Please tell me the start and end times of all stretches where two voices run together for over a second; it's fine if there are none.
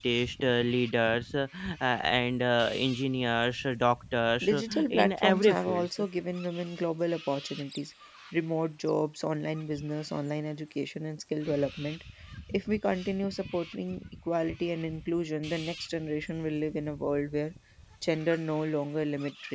4.4-5.9

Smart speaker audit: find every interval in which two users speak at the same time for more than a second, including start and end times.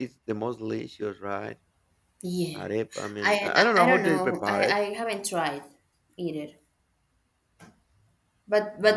3.2-4.7

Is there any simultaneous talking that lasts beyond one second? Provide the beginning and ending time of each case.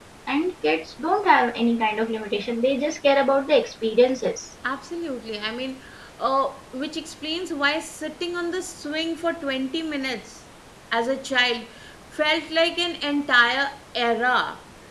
none

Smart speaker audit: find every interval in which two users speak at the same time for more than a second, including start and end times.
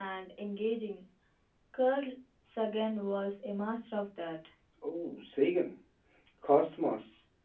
none

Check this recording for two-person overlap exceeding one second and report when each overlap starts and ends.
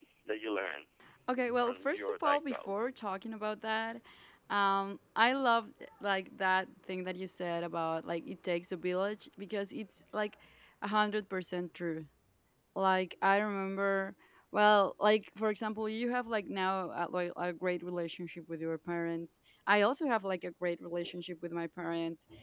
1.6-2.9

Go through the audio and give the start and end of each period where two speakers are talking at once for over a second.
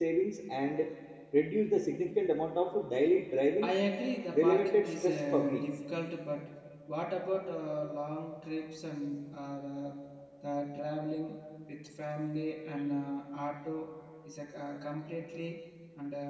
4.3-5.6

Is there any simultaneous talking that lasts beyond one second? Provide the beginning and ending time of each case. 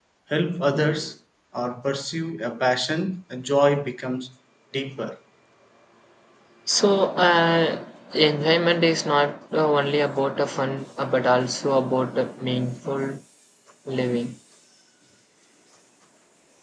none

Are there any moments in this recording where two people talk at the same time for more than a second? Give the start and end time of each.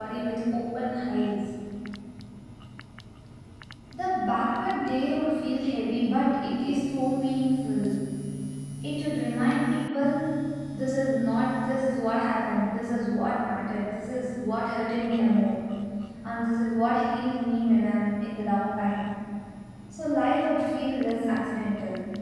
none

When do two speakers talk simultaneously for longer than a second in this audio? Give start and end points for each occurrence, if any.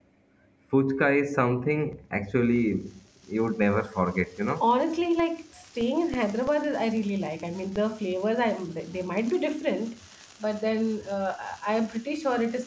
none

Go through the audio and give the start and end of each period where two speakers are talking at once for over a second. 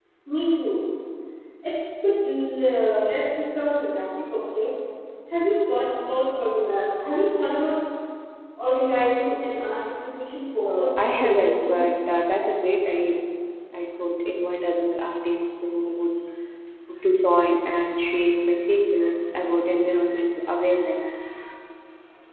10.6-11.9

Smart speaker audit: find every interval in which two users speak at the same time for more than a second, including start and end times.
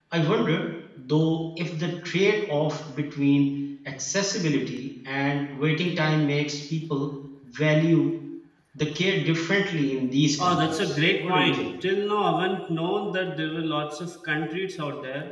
10.4-11.7

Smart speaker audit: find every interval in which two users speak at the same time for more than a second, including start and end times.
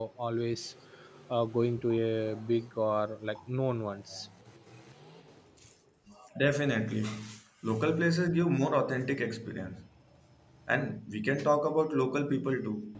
none

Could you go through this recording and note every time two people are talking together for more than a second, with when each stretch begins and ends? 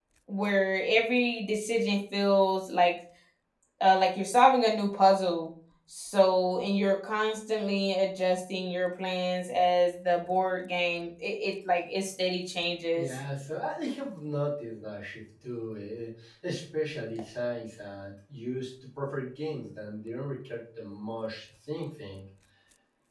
none

